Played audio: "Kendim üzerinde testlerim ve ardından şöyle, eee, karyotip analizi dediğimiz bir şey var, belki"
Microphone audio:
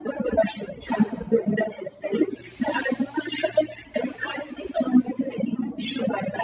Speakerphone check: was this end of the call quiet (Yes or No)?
Yes